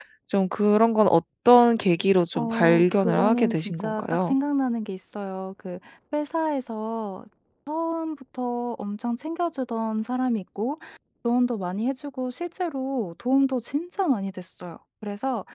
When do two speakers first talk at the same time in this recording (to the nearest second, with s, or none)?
2 s